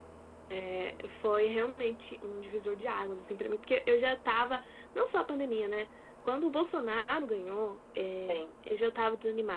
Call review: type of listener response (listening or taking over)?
listening